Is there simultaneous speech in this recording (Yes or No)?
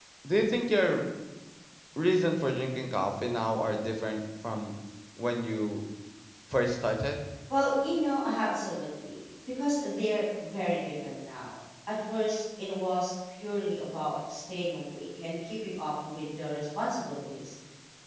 No